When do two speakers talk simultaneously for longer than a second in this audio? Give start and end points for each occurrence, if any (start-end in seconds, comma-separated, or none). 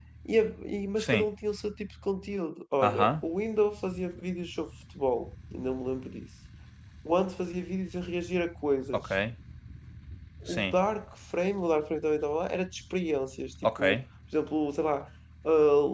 none